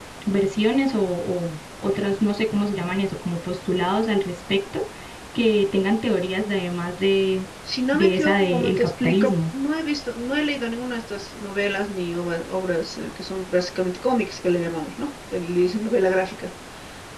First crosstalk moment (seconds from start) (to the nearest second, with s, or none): 8 s